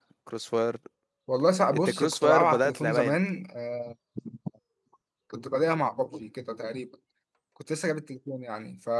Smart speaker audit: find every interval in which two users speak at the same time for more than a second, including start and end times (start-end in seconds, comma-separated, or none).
1.7-3.2